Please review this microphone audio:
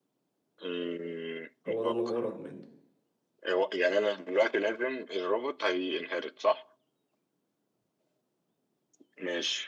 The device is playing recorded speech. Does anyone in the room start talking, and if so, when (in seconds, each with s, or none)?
1.7 s